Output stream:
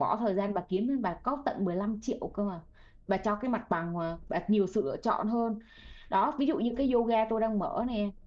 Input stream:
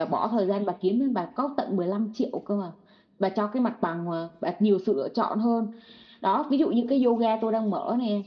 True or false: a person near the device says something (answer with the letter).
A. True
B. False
B